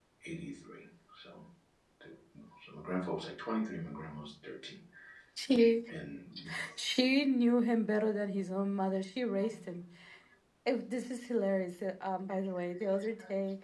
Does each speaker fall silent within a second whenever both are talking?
Yes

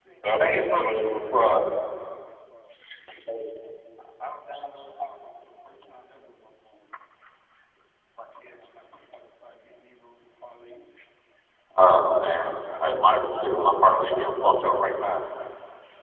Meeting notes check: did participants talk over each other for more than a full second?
No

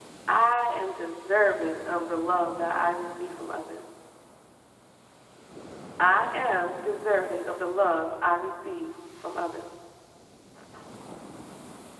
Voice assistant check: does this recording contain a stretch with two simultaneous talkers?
No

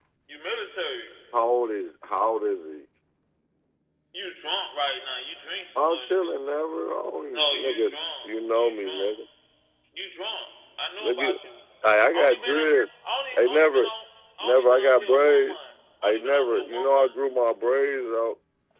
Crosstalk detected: Yes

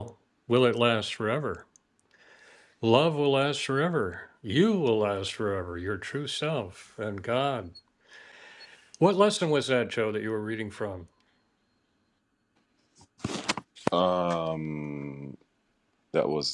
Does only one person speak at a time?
Yes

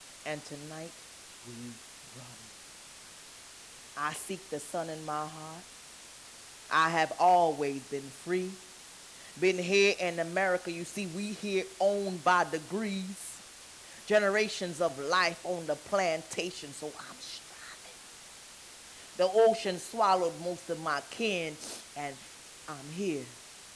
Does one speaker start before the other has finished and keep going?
No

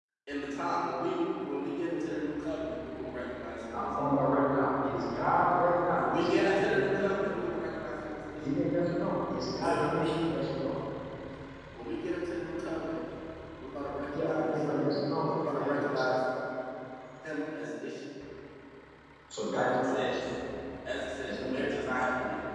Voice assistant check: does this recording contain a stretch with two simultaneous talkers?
Yes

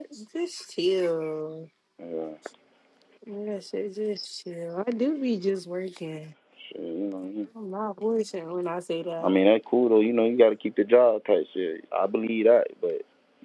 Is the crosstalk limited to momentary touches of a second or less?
Yes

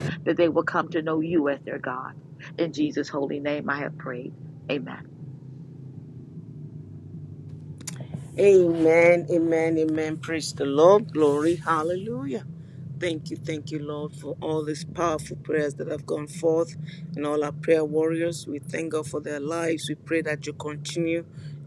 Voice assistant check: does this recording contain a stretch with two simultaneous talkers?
No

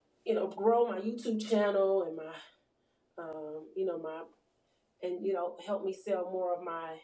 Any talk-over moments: No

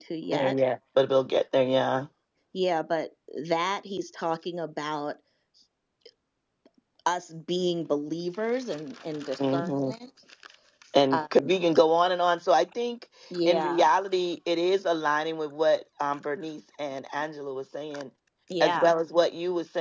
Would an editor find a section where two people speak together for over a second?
No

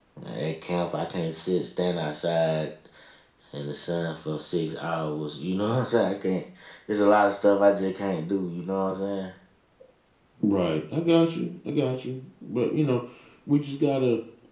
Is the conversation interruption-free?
Yes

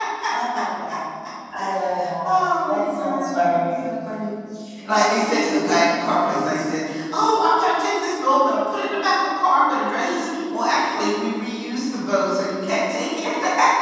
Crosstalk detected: Yes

